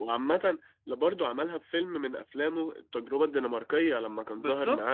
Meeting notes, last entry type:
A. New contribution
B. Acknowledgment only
B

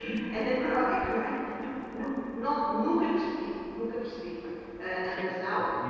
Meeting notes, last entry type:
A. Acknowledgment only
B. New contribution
B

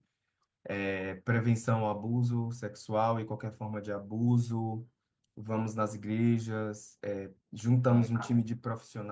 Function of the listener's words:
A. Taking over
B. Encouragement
B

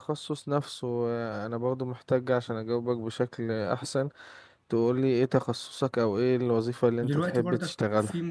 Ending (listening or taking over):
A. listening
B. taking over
B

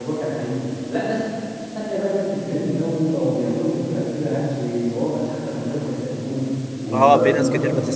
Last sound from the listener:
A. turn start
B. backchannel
A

